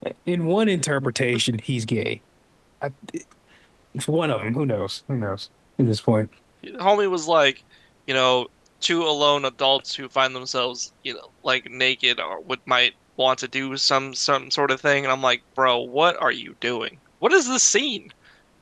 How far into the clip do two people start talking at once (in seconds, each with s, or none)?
none